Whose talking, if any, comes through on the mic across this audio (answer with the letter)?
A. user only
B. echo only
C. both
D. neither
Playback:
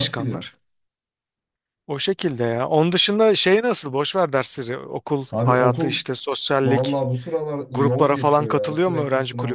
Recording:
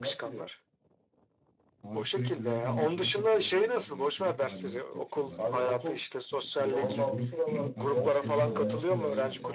C